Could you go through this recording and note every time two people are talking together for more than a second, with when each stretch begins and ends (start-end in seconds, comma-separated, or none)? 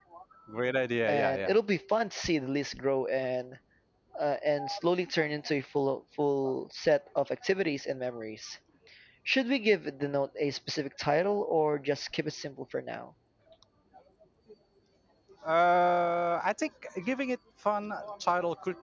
none